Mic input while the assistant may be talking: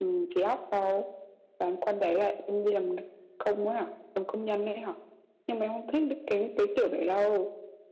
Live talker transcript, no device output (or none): none